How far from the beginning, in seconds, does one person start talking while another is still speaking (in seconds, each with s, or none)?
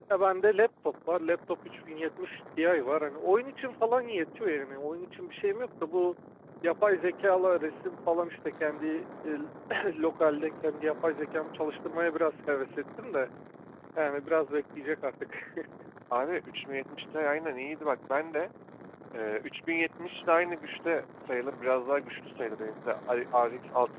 none